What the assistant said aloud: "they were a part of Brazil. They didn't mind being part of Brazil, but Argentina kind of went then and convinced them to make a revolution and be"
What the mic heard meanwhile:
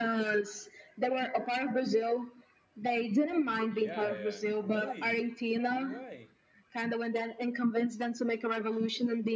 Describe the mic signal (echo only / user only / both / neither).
both